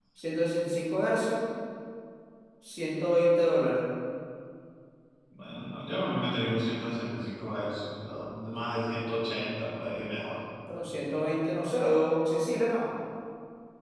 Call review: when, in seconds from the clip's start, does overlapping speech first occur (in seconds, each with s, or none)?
none